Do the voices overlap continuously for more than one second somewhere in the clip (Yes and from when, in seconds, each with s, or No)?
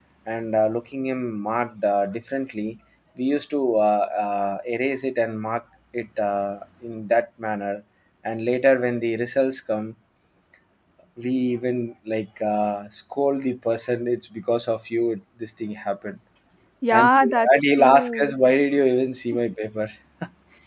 Yes, from 16.9 s